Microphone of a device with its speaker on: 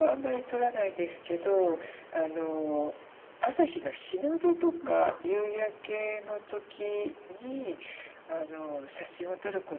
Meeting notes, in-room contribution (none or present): present